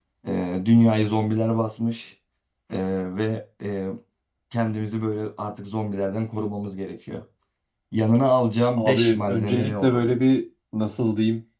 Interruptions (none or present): present